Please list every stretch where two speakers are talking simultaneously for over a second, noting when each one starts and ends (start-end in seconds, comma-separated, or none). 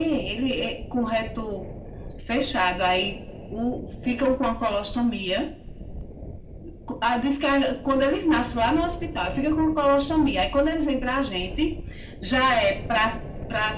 none